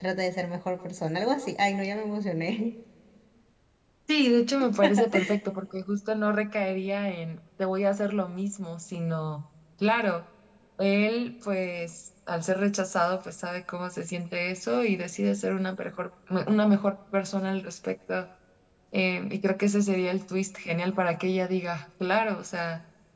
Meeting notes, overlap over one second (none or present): none